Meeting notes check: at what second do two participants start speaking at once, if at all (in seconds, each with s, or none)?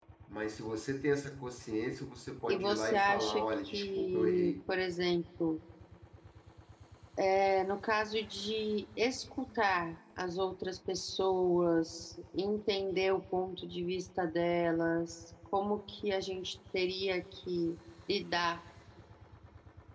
2.5 s